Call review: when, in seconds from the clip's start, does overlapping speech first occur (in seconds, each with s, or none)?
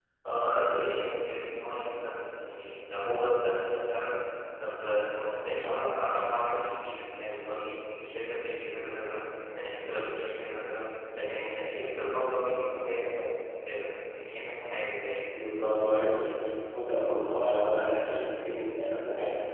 none